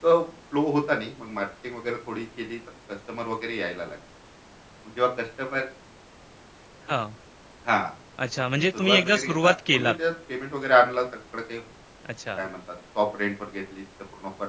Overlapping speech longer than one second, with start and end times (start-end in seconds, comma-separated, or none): 8.7-9.9